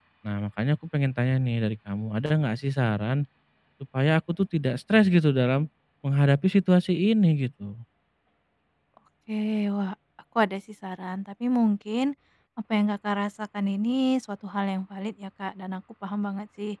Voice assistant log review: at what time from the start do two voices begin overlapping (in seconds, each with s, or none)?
none